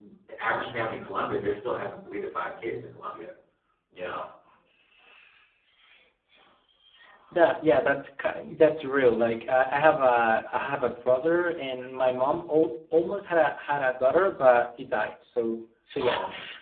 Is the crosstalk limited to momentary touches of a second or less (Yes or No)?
Yes